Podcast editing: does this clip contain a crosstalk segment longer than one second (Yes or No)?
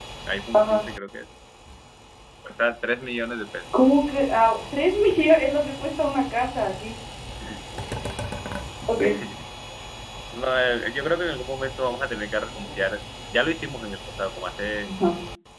No